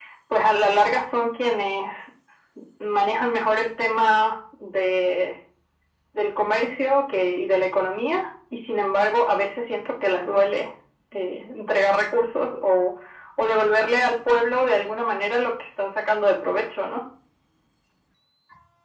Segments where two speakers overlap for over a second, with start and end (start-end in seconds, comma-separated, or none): none